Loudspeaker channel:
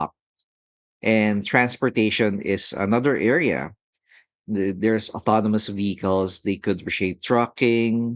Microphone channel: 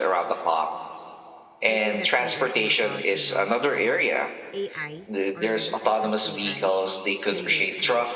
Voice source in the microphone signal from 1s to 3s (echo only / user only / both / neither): both